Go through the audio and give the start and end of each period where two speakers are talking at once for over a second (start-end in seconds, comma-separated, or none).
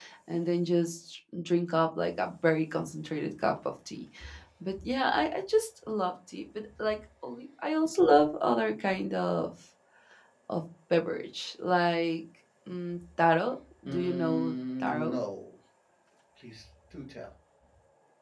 13.8-15.2